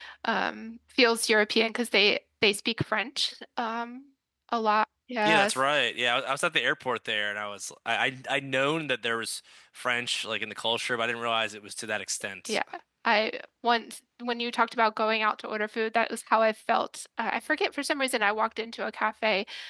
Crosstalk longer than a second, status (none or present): none